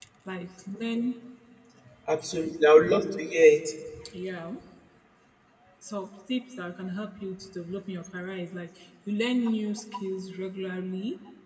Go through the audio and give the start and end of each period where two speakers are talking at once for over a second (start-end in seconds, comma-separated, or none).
none